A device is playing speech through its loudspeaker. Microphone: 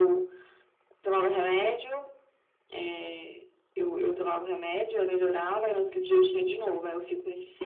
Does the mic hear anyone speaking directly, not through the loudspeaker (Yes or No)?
No